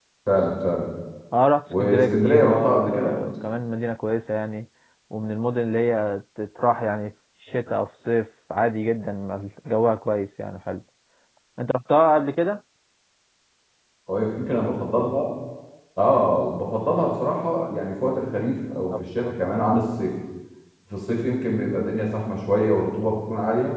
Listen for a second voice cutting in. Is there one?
Yes, from 1.7 s

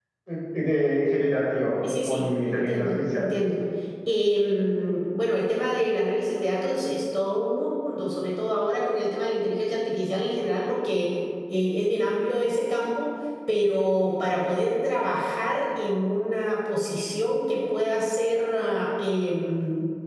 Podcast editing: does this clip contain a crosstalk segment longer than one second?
Yes, from 2.1 s

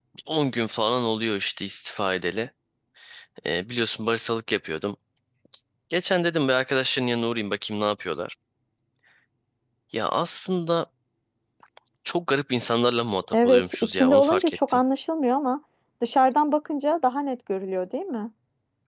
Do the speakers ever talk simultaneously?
Yes, from 13.3 s

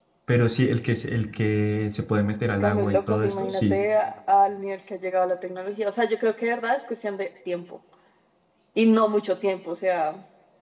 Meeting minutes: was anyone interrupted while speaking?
Yes, from 2.5 s

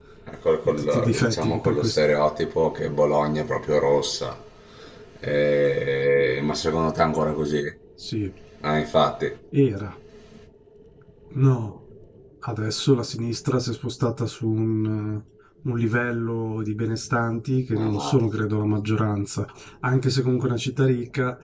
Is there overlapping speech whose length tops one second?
Yes, from 0.6 s

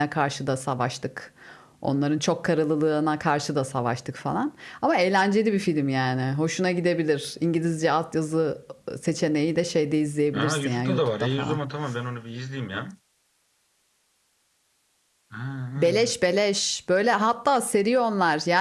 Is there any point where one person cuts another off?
Yes, from 10.3 s

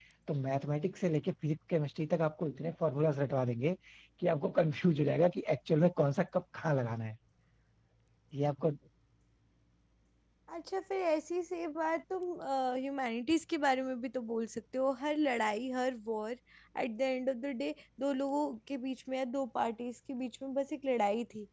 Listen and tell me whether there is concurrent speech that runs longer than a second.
No

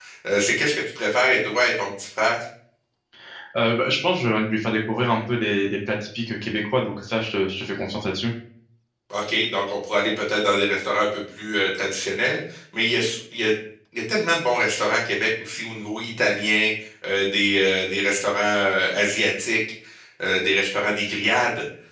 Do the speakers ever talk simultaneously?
No

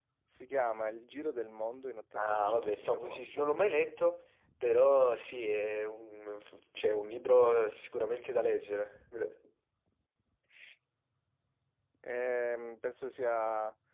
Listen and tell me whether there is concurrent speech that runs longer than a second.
Yes, from 2.2 s

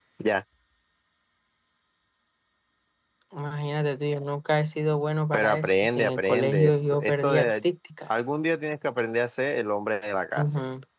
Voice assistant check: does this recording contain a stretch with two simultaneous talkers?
Yes, from 5.3 s

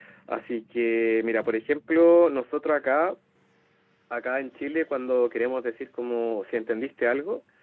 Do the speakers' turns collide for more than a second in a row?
No

